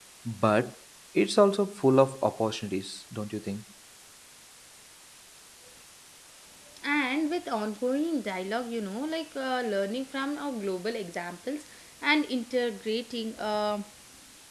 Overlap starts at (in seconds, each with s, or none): none